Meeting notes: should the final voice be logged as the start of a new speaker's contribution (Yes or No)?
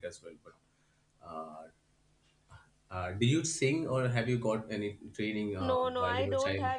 Yes